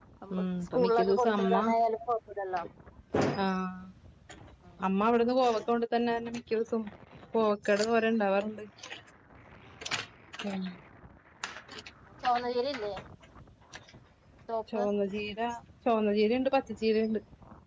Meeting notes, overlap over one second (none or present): present